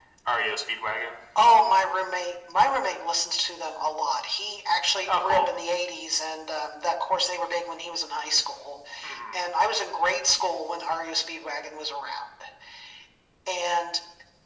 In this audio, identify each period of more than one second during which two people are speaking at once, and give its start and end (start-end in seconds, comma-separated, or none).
none